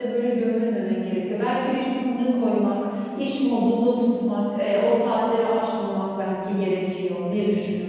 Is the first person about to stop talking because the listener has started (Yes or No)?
Yes